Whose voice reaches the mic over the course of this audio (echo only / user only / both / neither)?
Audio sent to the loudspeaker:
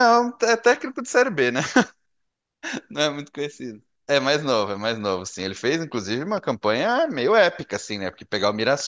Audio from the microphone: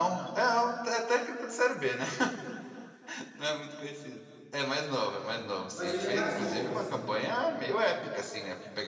both